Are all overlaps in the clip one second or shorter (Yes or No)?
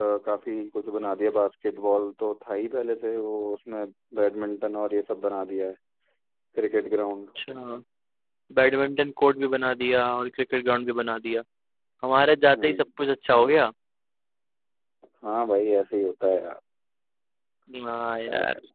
Yes